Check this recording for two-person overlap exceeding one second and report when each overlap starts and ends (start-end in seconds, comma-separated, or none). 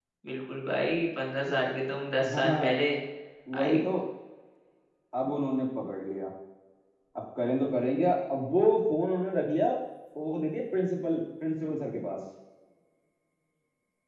none